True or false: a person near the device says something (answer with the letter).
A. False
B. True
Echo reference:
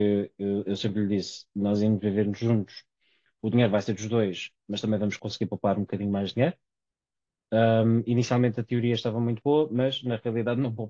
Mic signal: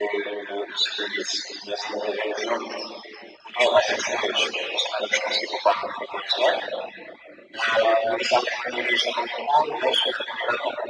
A